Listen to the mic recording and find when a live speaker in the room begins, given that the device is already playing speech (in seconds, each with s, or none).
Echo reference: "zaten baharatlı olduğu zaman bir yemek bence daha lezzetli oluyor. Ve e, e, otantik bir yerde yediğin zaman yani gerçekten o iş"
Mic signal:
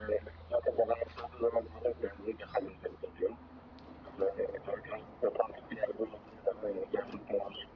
none